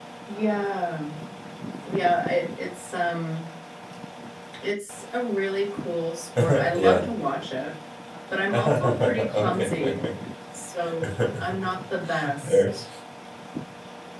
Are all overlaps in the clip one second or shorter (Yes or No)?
No